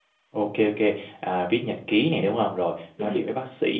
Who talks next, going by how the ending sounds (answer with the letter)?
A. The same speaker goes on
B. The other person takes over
A